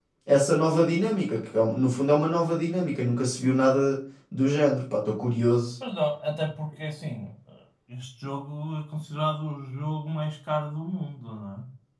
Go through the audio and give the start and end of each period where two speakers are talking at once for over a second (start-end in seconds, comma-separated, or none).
none